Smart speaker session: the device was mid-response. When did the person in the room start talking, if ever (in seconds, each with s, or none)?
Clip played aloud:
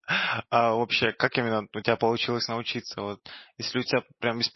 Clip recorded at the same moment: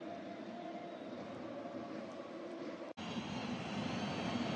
none